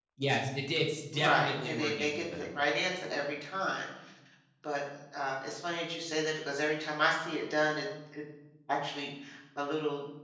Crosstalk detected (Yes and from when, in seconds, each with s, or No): Yes, from 1.1 s